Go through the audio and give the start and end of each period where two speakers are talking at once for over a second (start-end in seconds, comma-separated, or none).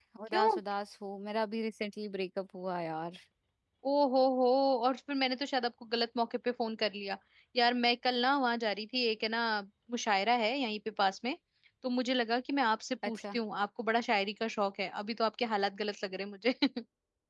none